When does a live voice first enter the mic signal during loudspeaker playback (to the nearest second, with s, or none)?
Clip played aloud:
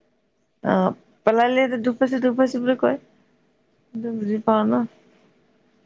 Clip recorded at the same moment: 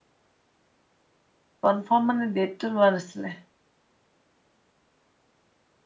2 s